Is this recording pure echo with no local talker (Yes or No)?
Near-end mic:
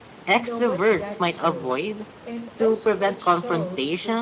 No